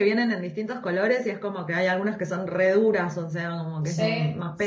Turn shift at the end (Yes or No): Yes